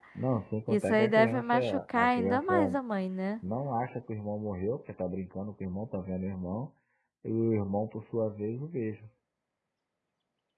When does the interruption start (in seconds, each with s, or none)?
0.7 s